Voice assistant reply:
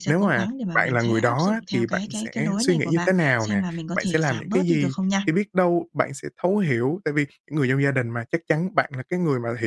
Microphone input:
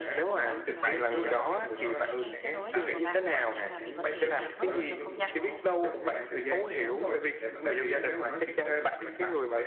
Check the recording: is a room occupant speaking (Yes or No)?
Yes